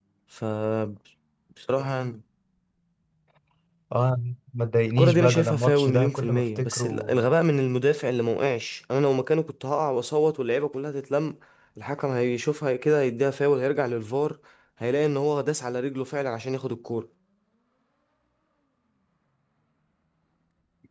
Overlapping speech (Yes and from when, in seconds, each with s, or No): Yes, from 5.0 s